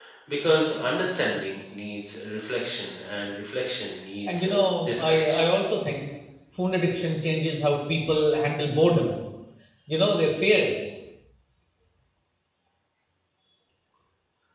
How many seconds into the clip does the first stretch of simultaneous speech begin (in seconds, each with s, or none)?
4.3 s